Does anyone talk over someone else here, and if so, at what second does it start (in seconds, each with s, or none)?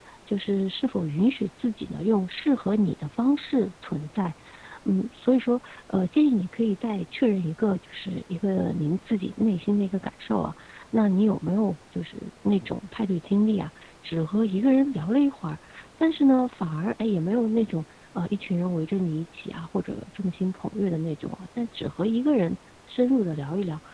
none